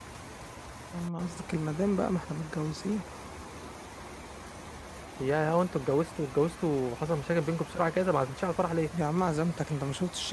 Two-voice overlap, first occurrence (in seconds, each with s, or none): none